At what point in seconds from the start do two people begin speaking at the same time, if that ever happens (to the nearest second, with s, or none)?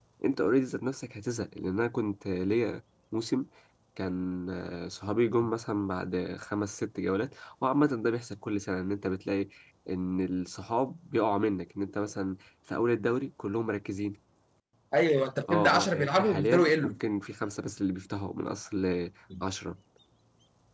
15 s